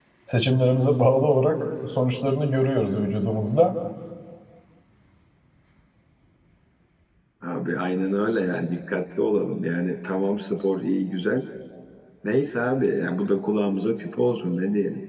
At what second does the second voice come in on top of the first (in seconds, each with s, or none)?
none